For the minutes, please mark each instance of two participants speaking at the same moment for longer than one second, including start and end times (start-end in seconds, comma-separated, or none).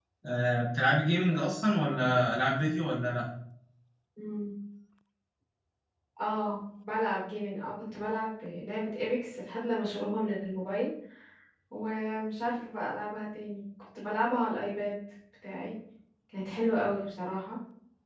none